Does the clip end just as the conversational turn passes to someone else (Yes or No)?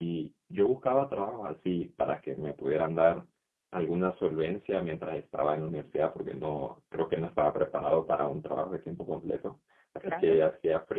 No